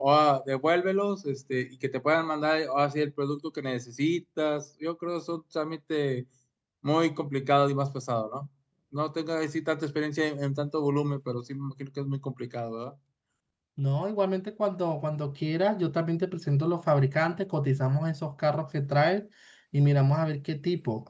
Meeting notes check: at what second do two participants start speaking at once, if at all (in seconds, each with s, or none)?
none